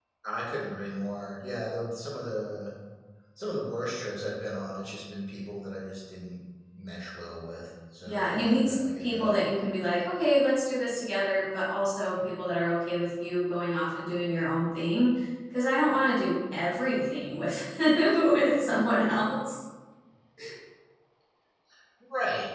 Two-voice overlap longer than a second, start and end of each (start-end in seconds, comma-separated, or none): 8.1-9.4